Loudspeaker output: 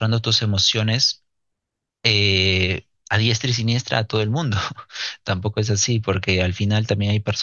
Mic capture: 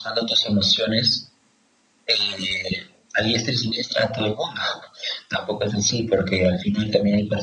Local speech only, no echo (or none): none